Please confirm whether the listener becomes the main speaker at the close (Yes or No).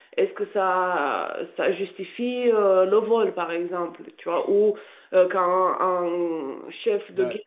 No